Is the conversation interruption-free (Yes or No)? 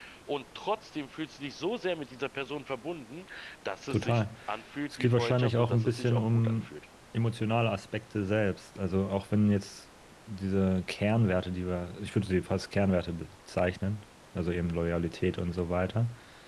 No